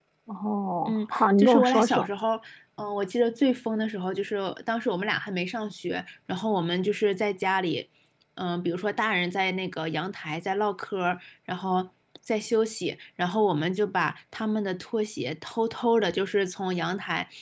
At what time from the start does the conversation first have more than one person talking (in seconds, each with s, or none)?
0.8 s